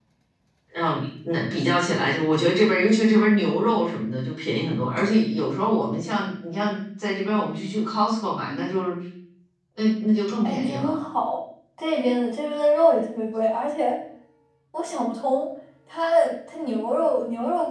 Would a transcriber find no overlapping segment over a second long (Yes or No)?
Yes